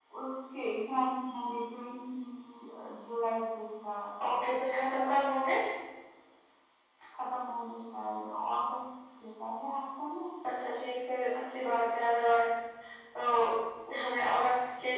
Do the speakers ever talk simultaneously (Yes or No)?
No